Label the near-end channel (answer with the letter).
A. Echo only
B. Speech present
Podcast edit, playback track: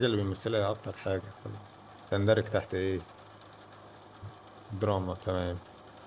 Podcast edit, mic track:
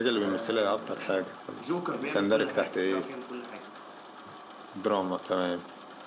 B